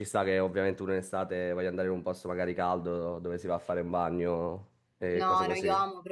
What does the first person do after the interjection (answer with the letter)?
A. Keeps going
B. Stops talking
B